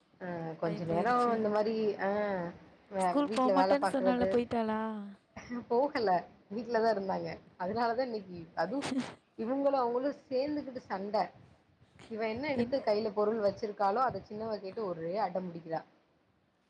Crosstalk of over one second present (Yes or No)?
Yes